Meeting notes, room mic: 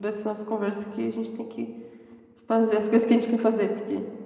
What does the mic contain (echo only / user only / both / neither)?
user only